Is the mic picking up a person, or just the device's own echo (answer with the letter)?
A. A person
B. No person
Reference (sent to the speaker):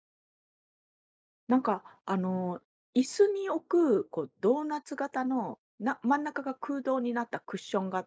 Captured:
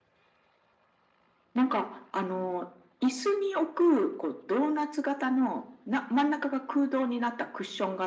B